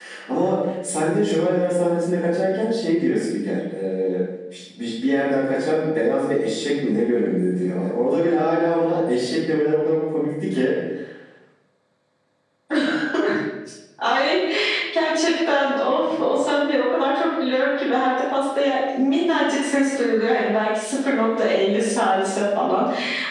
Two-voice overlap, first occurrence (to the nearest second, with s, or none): none